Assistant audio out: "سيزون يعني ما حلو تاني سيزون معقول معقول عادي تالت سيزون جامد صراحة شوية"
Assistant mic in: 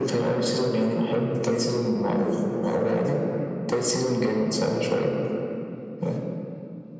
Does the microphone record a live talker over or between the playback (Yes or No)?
No